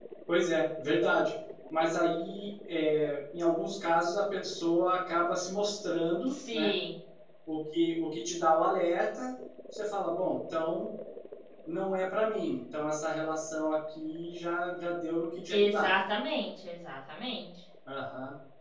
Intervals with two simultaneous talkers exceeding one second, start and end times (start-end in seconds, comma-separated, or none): none